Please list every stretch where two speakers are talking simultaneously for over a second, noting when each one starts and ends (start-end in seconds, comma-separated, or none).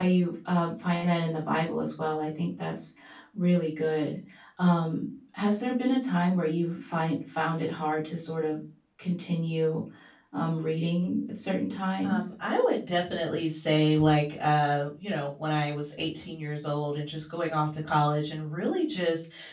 none